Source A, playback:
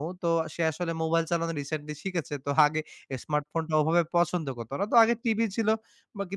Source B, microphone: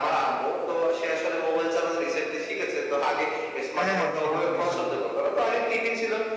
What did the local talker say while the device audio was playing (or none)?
হ্যাঁ, হ্যাঁ সেটা তো নিঃসন্দেহে।